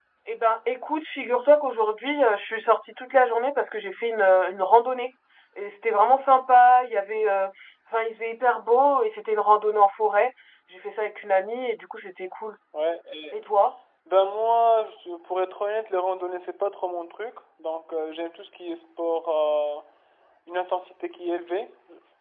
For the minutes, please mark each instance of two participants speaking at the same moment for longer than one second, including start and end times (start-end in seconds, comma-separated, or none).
none